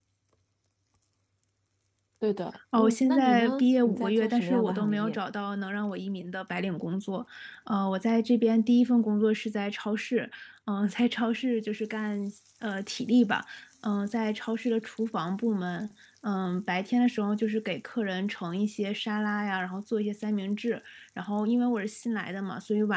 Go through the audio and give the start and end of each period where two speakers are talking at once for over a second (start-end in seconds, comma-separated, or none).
2.8-5.2